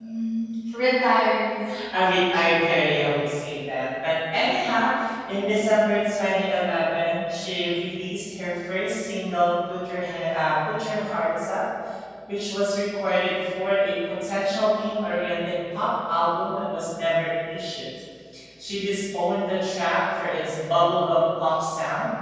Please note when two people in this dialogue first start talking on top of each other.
none

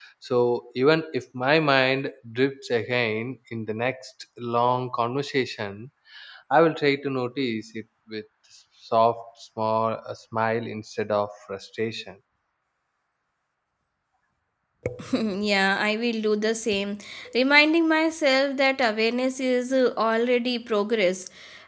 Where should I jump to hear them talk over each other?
none

